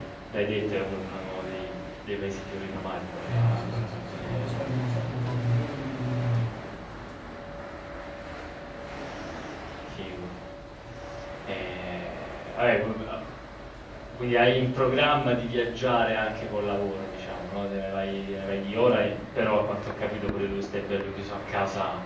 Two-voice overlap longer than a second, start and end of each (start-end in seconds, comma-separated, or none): 3.3-4.6